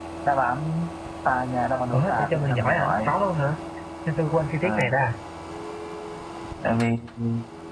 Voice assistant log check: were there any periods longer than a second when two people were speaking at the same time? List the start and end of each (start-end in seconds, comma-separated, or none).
1.9-3.2